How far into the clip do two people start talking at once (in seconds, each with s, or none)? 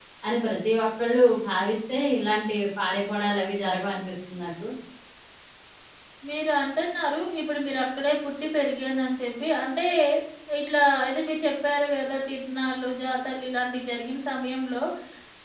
none